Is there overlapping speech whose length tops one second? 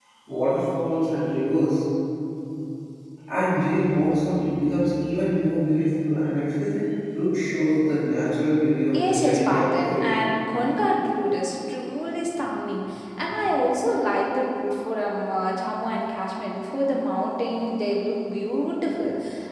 Yes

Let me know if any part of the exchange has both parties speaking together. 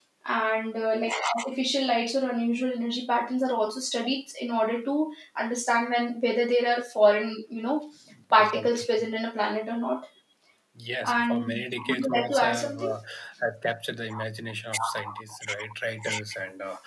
Yes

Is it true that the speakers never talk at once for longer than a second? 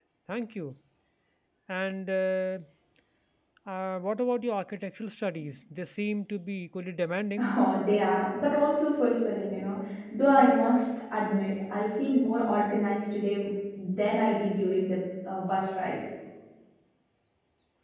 Yes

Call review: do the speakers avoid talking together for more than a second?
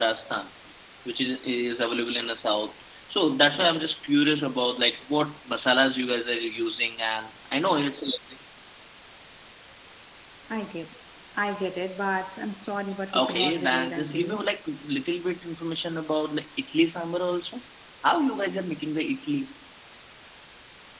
No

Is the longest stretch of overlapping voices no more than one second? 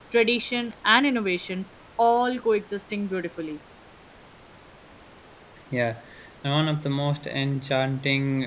Yes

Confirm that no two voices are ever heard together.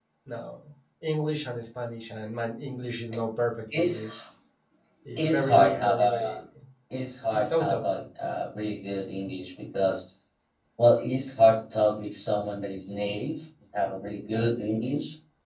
No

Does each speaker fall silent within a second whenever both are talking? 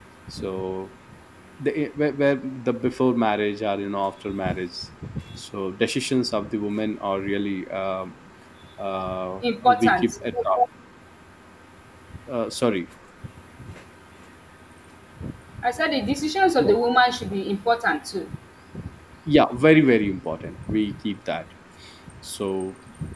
Yes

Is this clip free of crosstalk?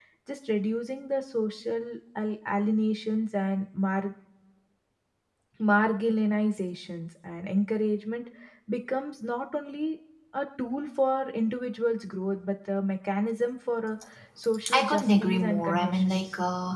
No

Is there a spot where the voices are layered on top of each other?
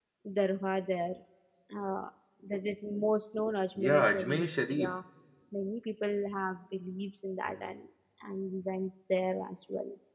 Yes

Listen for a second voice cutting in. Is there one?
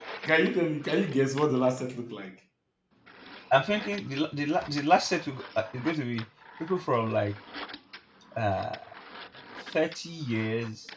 No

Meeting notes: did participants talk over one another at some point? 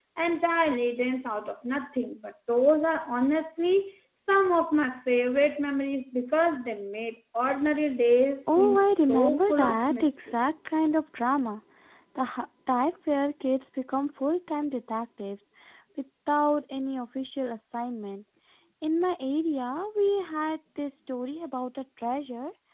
Yes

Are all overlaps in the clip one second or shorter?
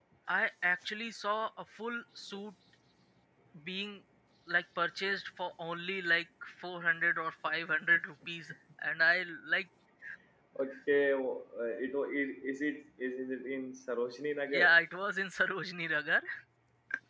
Yes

